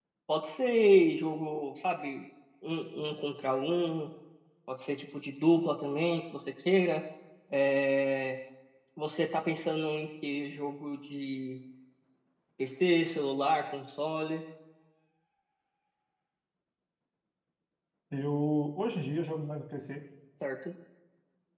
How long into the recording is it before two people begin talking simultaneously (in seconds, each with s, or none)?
none